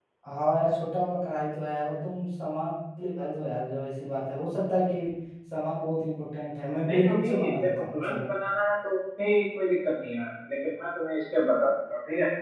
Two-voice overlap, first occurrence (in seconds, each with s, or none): 6.8 s